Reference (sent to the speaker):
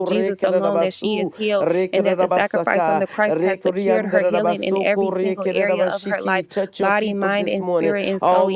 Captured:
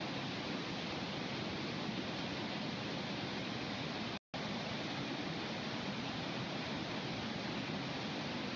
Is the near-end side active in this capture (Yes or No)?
No